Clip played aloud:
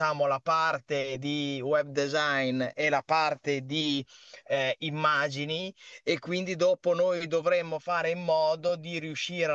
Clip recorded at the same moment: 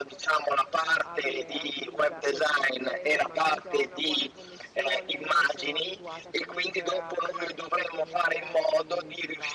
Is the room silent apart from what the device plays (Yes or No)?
No